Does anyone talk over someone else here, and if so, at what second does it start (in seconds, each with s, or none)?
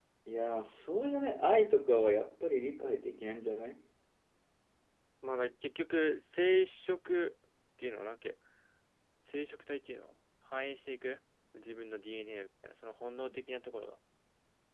none